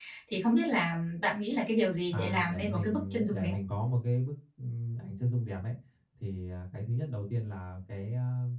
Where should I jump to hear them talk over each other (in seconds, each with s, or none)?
2.1 s